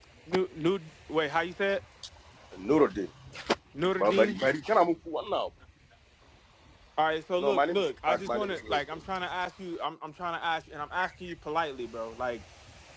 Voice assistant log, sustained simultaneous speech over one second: present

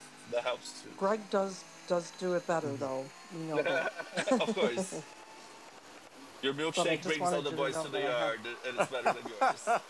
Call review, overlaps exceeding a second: present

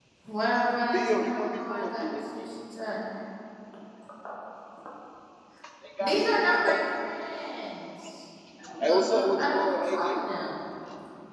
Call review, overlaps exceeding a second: present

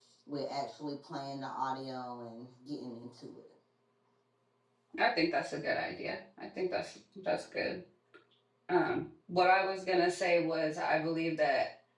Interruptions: none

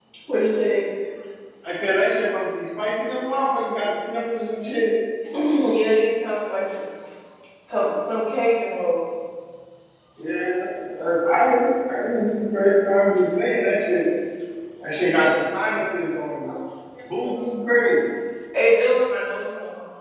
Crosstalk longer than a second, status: none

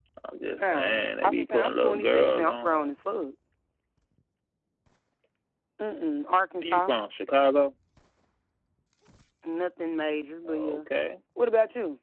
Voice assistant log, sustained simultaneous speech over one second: present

